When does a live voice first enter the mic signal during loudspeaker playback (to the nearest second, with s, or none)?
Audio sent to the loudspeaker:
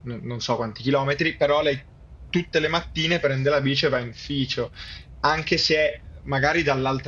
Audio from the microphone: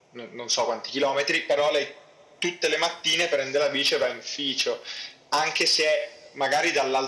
none